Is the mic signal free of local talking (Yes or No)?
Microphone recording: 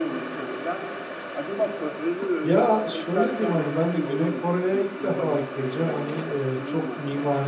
No